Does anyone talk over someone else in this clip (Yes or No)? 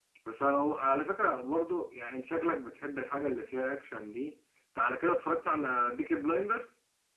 No